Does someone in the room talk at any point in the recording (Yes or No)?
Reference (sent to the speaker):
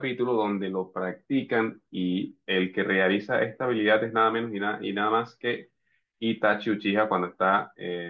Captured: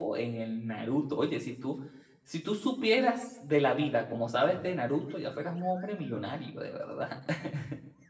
Yes